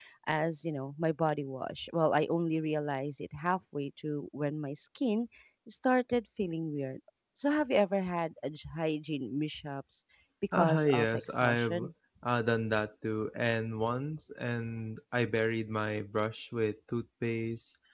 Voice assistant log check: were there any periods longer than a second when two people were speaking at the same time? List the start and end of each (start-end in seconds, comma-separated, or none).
10.5-11.9